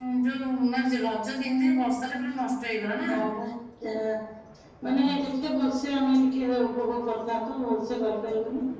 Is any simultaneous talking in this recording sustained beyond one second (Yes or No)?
No